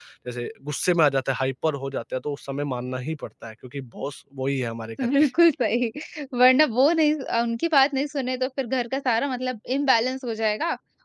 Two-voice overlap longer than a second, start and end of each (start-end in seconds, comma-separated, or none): none